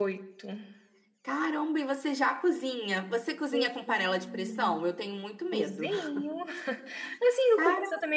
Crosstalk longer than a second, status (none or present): present